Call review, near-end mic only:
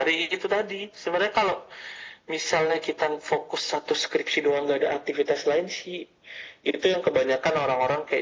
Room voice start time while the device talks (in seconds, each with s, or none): none